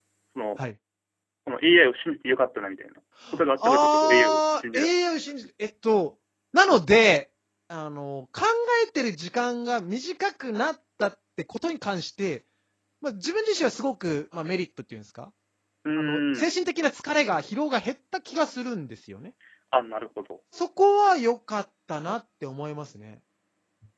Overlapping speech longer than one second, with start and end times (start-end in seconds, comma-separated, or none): 3.4-4.9